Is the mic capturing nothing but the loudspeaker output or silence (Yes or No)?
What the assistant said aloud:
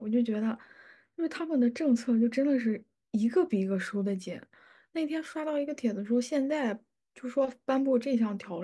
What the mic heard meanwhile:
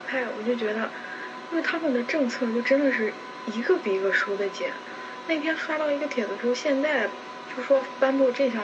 Yes